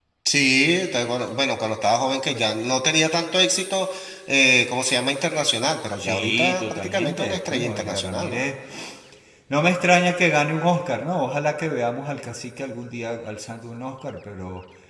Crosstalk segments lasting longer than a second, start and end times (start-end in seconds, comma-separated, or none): 6.0-8.4